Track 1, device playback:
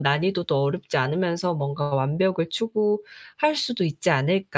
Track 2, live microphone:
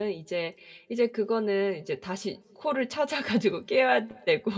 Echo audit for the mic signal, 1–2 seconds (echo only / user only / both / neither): user only